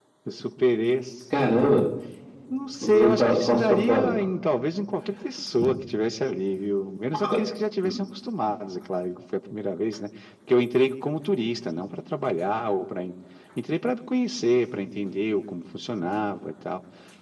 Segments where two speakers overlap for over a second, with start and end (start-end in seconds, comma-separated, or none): 2.8-4.1